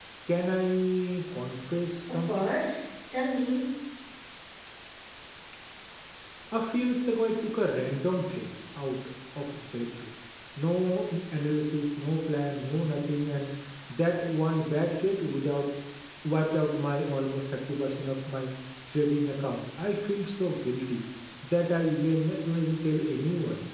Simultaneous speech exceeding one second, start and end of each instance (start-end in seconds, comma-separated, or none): none